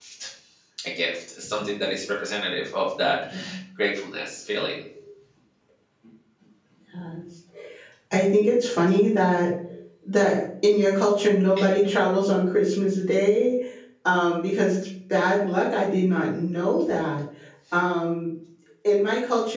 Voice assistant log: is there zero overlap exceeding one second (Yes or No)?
Yes